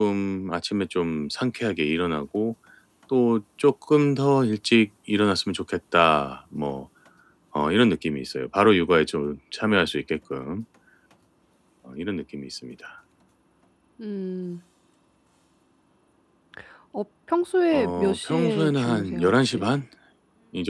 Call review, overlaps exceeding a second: present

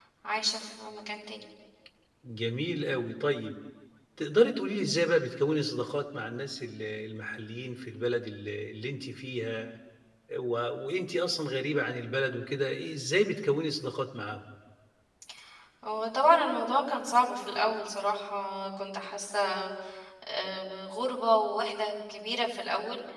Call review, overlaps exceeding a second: none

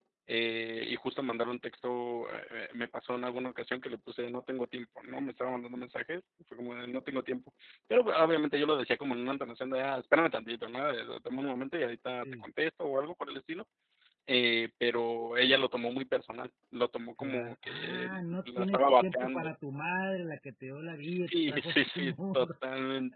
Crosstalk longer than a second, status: present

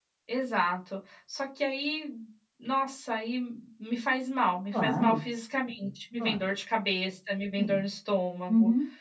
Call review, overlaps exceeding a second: none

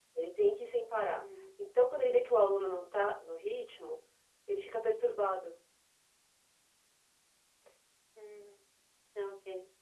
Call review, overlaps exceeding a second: none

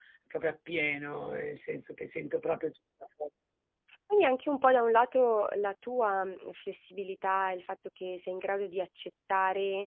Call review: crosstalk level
none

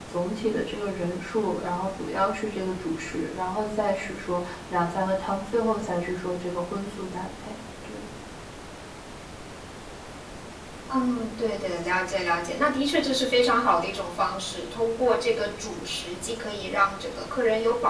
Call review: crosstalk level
none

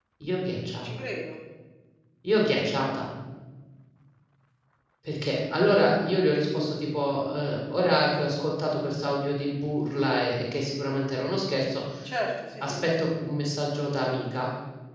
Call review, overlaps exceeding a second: none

